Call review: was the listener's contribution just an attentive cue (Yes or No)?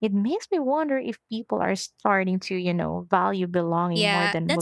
No